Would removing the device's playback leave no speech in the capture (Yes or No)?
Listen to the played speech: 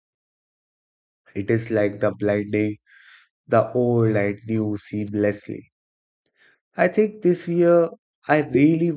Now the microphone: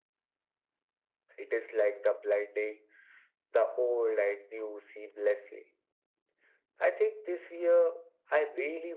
Yes